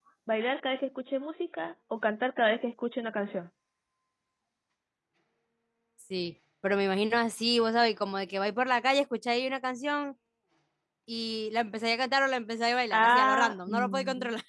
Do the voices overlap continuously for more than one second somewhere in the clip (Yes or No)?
Yes